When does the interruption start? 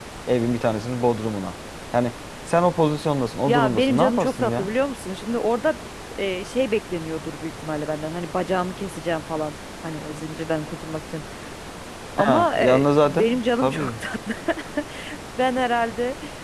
3.5 s

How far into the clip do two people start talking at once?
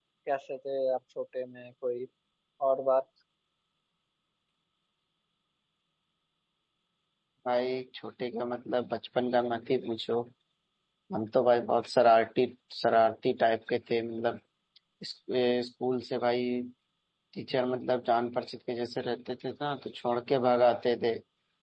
none

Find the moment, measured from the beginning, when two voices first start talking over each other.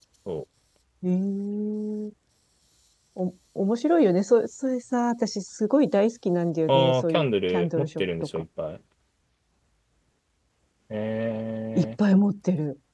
6.7 s

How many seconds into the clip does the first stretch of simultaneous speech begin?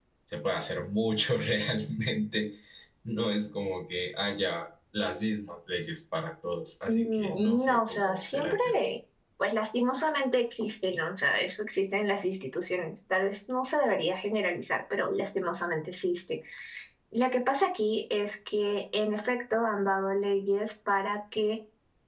6.9 s

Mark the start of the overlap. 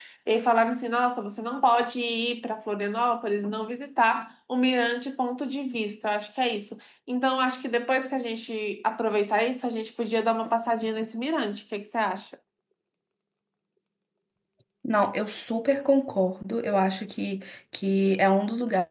none

